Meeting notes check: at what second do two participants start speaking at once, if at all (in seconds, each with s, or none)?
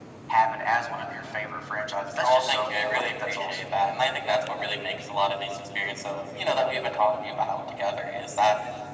2.2 s